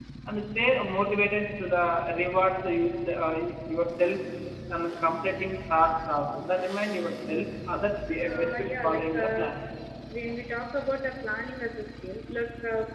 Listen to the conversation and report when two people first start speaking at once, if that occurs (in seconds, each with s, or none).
8.3 s